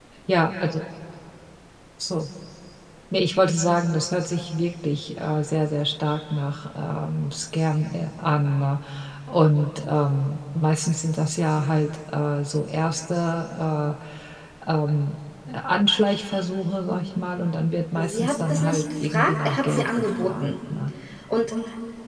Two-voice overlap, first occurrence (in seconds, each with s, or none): 17.9 s